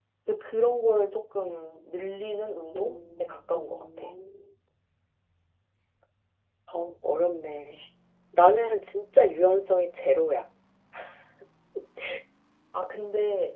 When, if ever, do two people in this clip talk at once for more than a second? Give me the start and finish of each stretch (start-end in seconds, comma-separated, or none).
2.7-4.1